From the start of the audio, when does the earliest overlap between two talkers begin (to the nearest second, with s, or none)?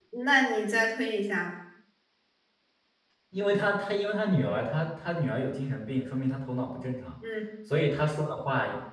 none